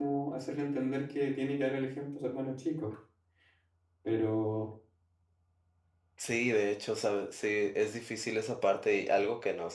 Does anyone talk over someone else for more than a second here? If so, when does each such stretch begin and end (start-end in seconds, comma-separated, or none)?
none